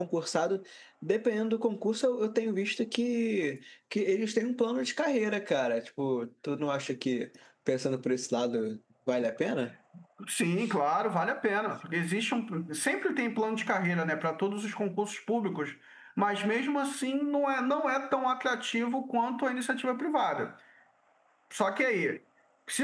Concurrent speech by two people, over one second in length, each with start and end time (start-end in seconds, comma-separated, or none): none